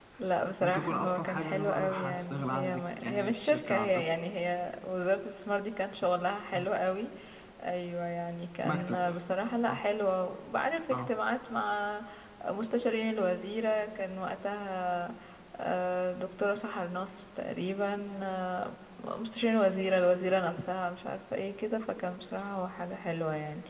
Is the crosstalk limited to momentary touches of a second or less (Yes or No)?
No